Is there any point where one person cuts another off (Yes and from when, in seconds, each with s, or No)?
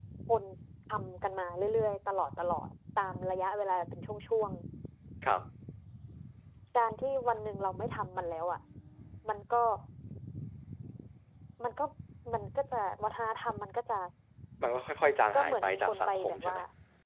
Yes, from 15.3 s